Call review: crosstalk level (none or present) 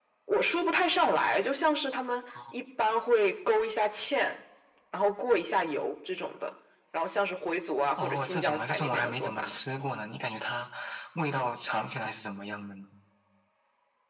present